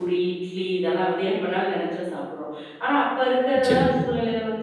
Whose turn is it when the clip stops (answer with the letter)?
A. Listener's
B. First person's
B